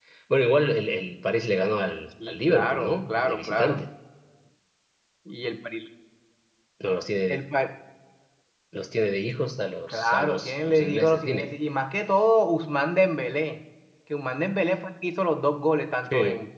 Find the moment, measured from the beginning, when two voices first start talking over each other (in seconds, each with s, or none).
2.3 s